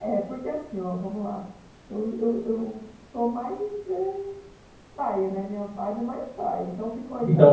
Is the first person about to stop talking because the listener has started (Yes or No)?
Yes